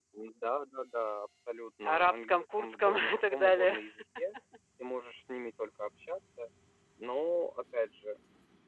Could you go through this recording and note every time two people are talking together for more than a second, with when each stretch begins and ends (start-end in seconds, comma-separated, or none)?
1.8-3.7